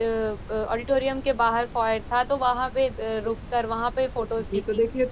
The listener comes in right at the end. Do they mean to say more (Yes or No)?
Yes